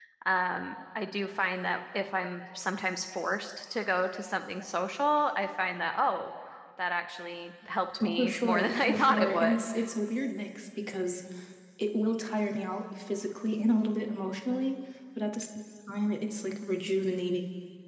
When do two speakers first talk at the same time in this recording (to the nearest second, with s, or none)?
8 s